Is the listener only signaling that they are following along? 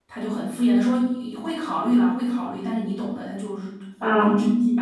Yes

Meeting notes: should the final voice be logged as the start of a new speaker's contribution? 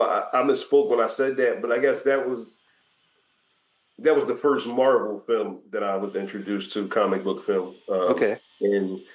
No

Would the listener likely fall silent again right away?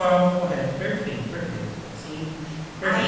No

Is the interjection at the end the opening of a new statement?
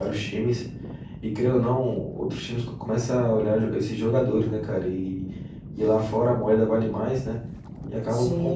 Yes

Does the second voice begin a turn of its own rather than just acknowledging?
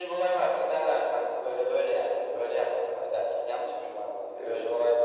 Yes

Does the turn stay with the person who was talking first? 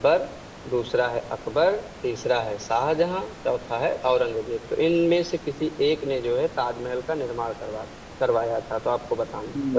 No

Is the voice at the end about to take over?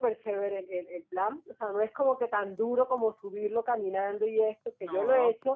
No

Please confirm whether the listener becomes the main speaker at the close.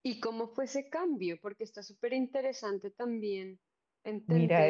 Yes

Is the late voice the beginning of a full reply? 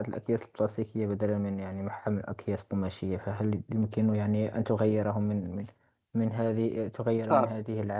No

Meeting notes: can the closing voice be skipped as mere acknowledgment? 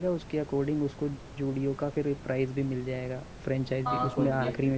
No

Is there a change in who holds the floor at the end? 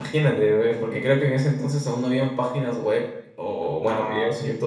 No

